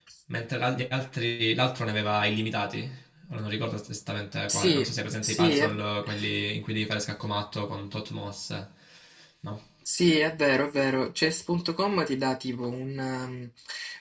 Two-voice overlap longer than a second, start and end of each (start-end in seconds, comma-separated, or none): 4.5-5.8